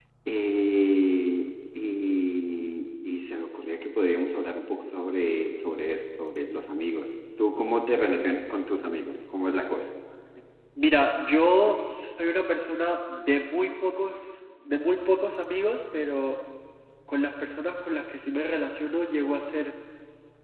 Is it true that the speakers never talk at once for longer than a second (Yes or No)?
Yes